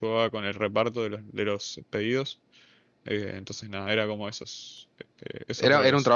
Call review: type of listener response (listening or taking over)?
taking over